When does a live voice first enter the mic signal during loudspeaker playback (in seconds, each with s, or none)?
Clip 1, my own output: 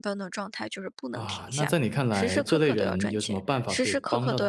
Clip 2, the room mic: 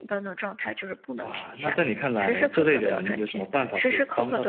none